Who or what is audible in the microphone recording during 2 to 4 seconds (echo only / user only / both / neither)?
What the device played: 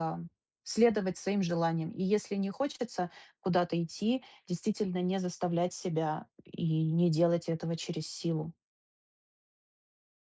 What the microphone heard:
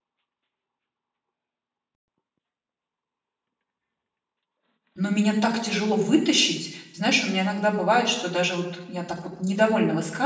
neither